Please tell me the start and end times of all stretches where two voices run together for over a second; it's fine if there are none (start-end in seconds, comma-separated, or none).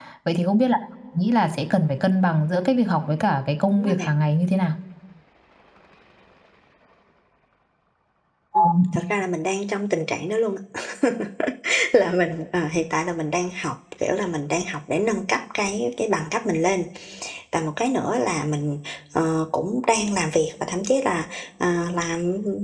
none